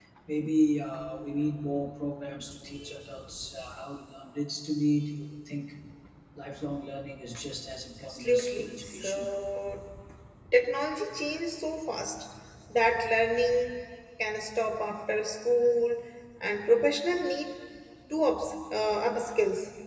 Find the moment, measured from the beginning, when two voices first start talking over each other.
8.1 s

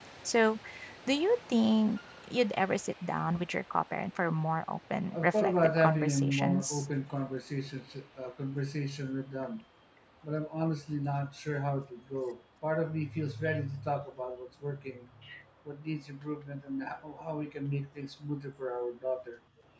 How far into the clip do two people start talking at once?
5.1 s

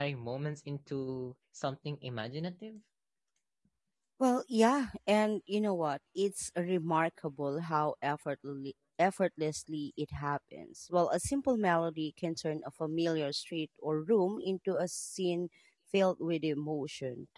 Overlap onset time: none

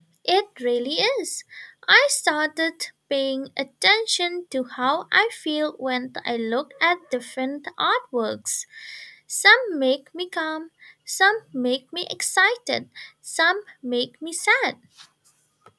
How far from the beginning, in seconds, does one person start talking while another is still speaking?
none

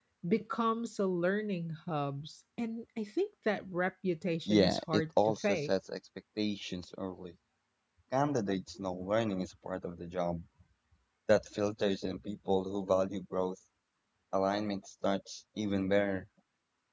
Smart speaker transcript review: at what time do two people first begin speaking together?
4.5 s

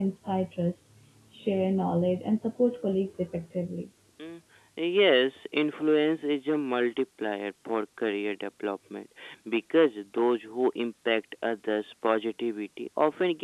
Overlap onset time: none

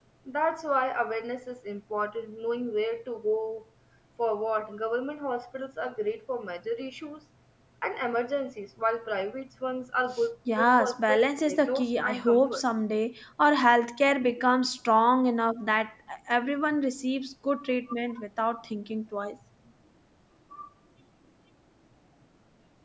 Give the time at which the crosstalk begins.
10.5 s

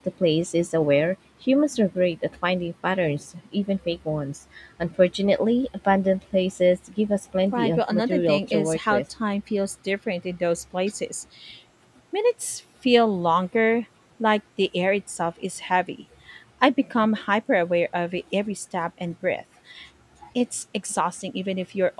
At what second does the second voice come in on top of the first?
7.5 s

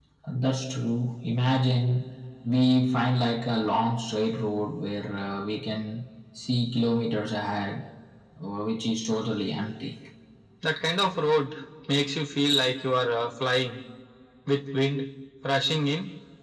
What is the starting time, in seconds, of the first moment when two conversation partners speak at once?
none

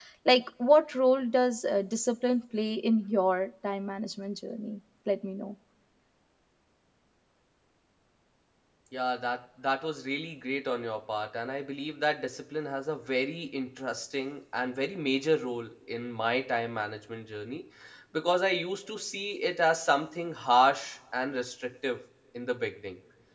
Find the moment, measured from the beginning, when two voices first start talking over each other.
none

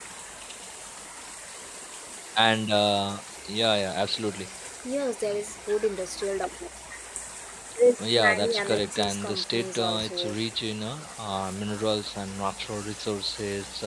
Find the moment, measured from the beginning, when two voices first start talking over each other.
8.0 s

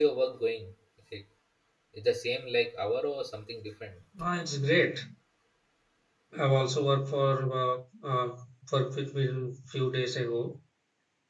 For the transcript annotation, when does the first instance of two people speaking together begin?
none

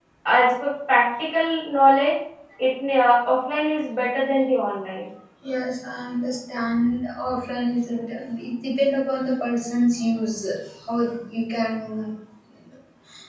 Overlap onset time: none

